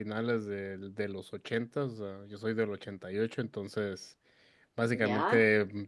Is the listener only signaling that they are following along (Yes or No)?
Yes